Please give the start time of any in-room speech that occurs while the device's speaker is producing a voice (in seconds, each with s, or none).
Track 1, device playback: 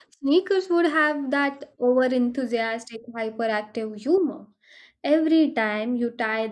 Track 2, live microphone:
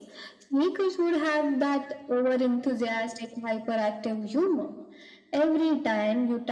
none